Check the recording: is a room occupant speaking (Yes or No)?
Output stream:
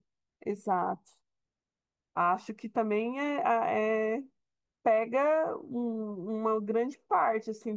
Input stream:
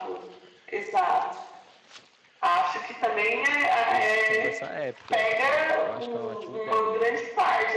Yes